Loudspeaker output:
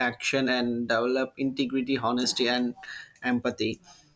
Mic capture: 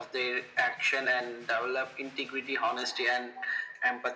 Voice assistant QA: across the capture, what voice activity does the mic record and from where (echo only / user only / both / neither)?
echo only